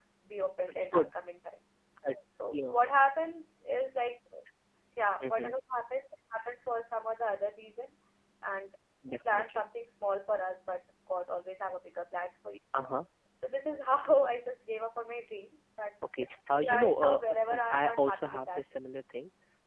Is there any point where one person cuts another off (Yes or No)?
Yes